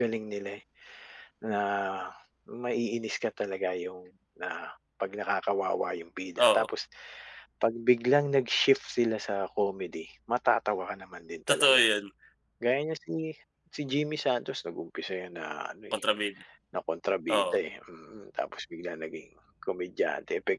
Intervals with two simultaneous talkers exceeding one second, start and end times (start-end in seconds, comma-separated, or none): none